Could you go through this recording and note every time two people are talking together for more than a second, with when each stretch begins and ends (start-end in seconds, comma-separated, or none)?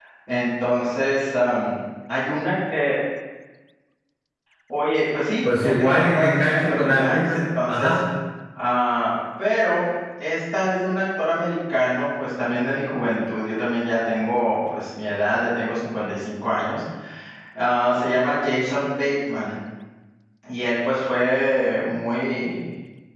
5.5-8.0